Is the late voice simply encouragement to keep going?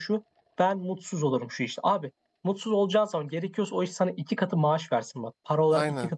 Yes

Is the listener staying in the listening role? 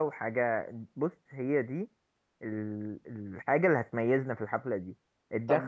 Yes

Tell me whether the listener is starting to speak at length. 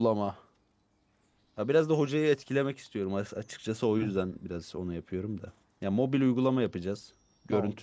No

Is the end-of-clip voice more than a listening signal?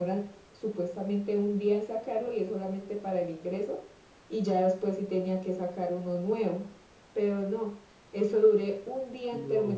No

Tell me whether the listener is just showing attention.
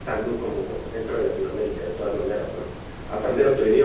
Yes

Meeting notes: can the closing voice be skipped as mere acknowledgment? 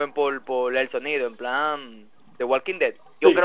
Yes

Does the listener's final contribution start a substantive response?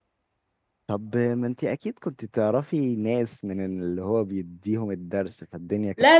Yes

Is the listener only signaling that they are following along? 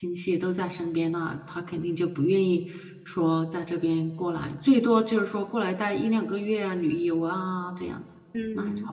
No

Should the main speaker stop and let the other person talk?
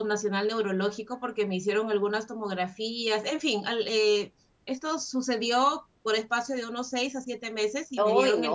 Yes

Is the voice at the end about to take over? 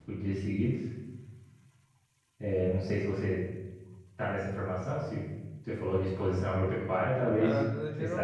Yes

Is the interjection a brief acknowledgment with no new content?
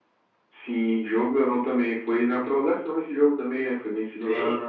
No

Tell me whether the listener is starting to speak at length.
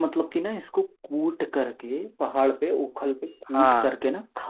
No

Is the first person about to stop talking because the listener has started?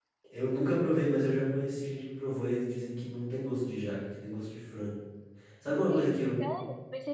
Yes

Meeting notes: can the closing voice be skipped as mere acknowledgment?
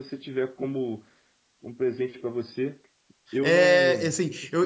No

